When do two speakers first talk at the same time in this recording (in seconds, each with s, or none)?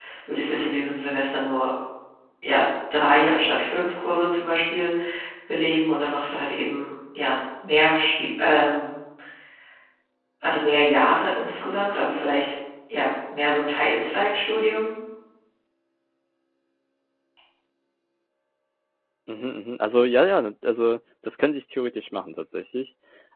none